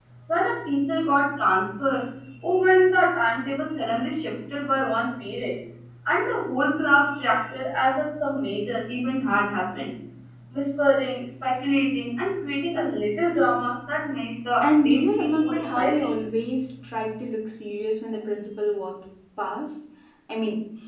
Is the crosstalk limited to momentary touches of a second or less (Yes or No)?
No